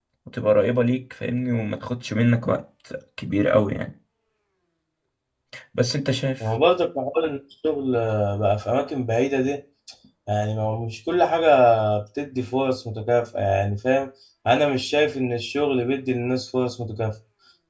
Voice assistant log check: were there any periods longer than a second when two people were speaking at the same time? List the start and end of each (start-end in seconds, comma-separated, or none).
none